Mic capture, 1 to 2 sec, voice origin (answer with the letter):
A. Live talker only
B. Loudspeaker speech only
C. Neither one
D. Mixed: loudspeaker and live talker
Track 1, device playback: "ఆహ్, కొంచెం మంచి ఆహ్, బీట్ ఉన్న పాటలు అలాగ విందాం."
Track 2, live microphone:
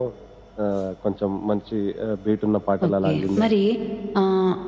B